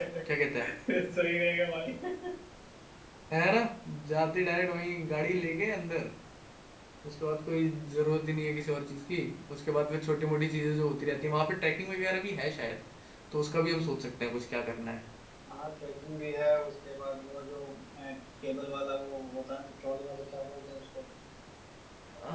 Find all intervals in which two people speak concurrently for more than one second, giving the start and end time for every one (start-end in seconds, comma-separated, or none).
none